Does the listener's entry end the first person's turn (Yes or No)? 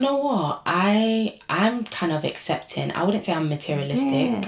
No